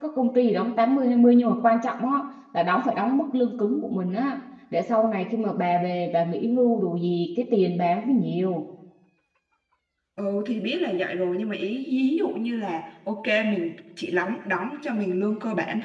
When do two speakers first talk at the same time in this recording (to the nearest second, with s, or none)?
none